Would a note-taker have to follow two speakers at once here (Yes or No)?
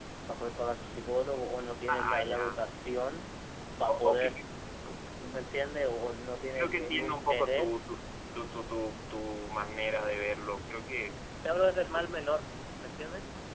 Yes